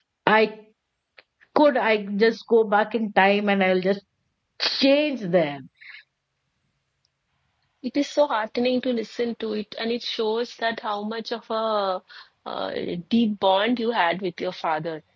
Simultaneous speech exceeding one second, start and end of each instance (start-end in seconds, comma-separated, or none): none